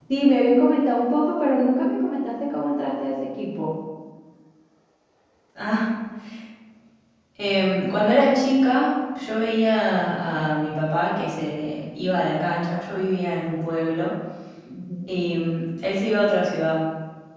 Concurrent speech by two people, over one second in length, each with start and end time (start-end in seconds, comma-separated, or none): none